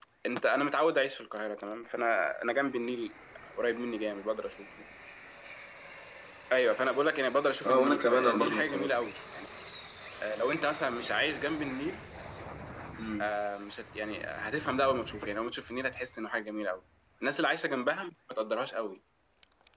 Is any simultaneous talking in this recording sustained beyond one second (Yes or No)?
Yes